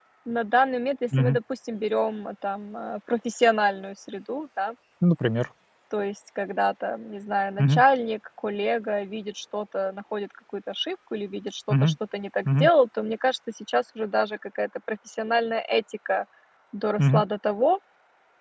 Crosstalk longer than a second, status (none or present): none